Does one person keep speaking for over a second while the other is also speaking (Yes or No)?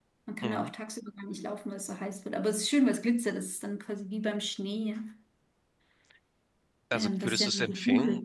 Yes